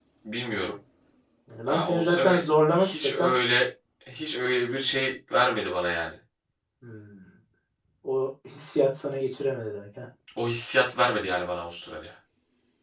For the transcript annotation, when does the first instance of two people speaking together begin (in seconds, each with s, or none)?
1.7 s